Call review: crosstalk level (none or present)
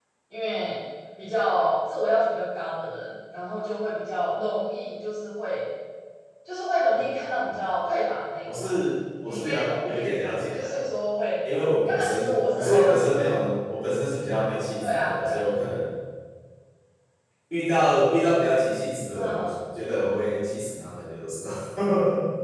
present